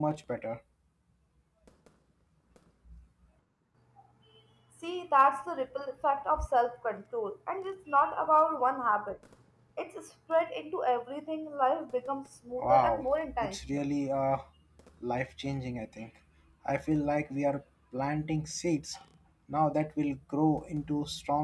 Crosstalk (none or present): present